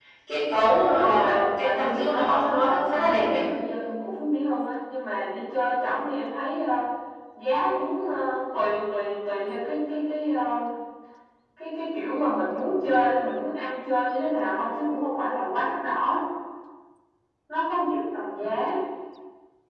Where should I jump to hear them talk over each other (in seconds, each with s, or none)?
1.0 s